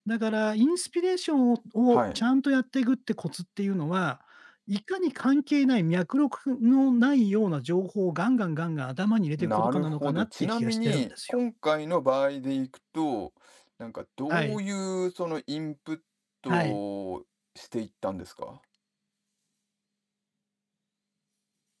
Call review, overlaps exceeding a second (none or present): present